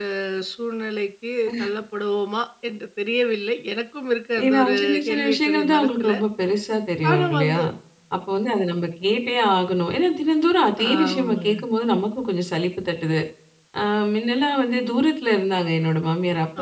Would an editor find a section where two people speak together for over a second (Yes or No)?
Yes